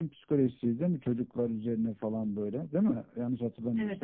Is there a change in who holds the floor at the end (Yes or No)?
Yes